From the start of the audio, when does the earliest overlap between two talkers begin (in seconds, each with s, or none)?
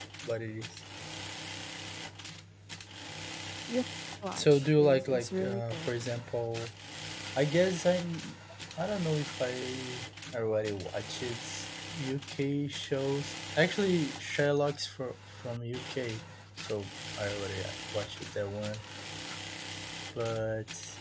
4.4 s